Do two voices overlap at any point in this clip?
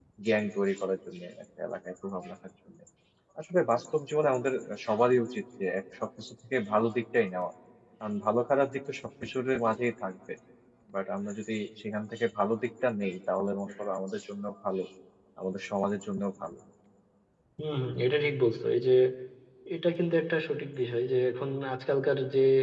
No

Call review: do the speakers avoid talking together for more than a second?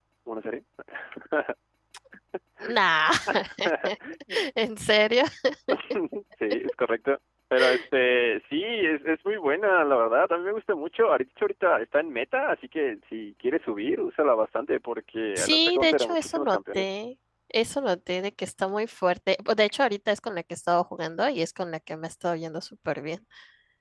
No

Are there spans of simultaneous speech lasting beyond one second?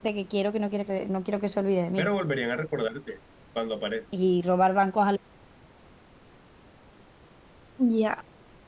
No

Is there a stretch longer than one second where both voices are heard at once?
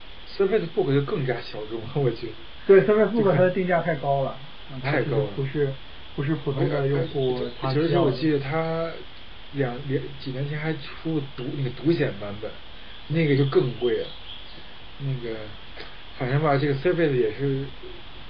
Yes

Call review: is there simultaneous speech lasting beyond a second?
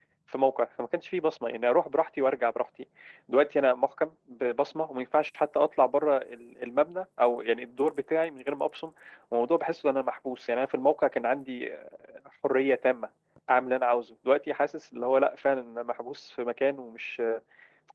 No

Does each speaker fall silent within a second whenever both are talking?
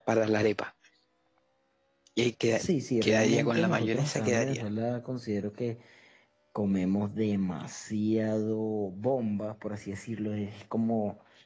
No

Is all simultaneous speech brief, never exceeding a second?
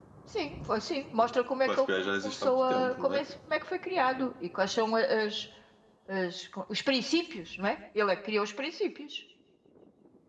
No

